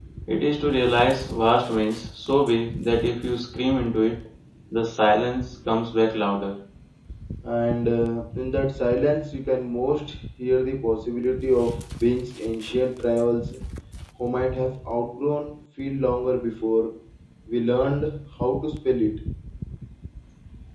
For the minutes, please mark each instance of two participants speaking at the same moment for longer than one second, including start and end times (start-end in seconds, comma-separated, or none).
none